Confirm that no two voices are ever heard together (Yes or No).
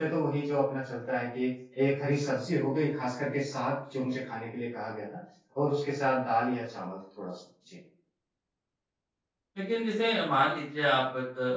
Yes